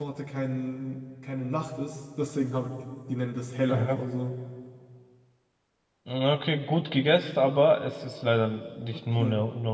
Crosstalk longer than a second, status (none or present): none